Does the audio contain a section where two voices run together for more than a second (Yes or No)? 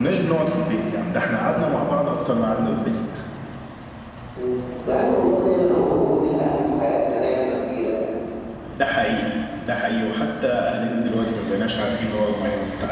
No